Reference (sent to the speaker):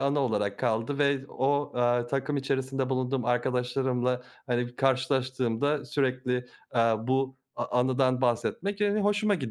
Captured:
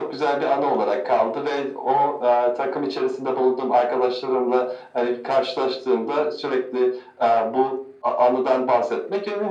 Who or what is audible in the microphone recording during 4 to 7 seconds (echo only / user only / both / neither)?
echo only